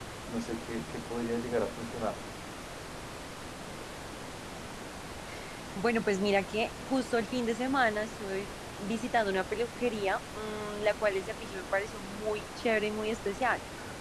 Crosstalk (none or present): none